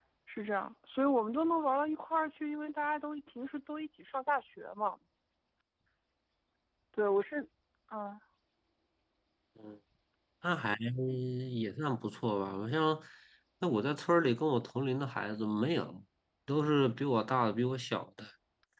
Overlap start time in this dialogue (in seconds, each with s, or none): none